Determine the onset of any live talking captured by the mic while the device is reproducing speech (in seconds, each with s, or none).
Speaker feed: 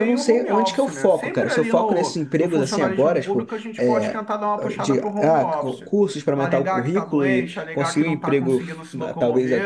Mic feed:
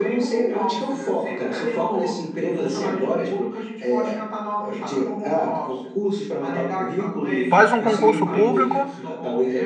7.5 s